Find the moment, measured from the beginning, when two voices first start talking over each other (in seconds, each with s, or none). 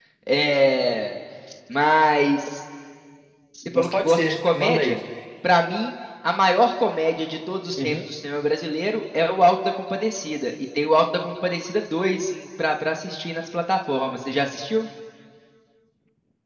3.8 s